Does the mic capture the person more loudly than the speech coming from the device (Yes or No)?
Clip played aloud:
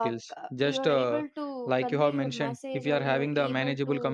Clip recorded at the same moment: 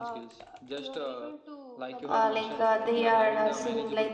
Yes